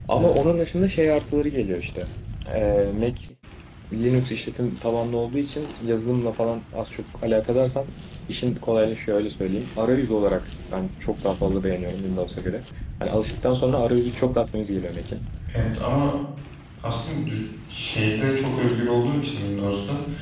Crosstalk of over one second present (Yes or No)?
No